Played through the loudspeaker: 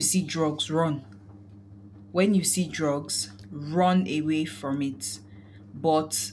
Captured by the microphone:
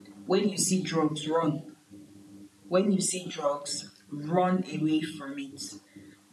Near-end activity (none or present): none